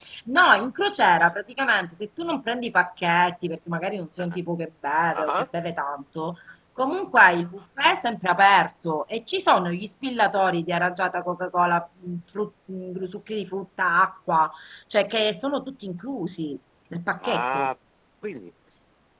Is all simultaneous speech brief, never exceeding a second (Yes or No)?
Yes